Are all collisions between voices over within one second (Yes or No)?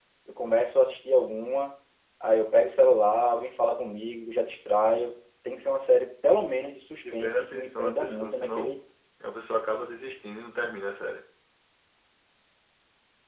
No